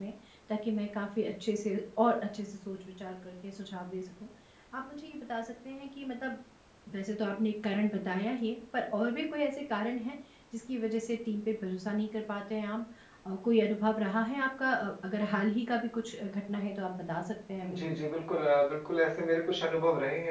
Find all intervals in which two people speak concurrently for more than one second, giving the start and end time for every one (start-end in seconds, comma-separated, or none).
none